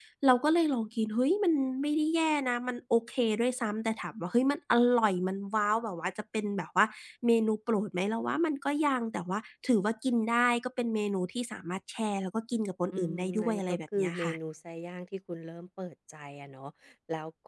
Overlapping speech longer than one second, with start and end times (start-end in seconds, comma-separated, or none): 12.9-14.3